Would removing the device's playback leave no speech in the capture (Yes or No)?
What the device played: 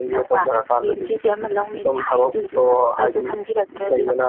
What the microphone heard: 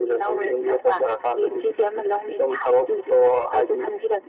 Yes